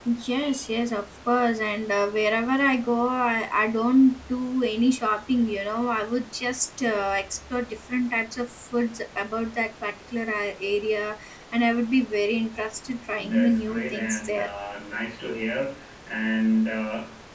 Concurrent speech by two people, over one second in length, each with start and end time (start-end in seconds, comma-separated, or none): 13.2-14.5